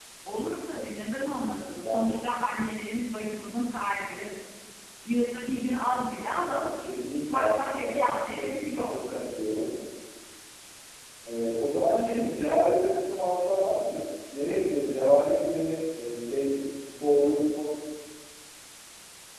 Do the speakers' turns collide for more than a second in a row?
Yes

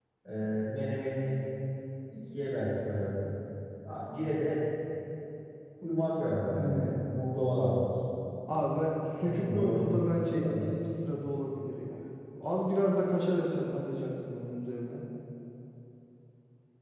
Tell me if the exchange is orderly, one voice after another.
No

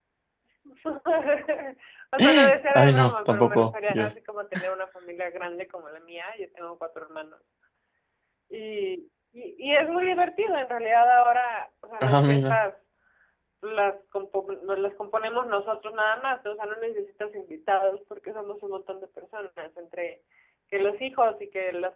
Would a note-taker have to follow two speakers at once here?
Yes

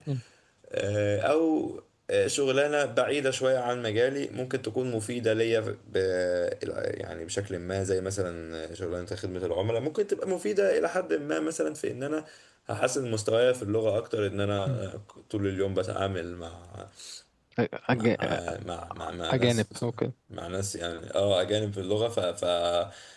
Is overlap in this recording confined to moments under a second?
Yes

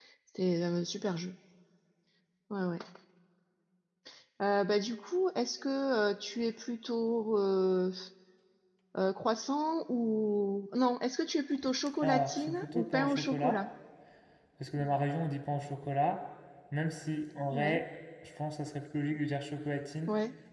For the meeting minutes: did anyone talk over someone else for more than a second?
Yes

